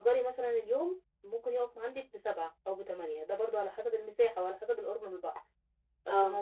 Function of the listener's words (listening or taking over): listening